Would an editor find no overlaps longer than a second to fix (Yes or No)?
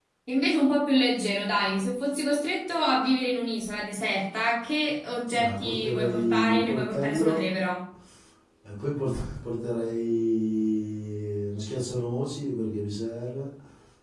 No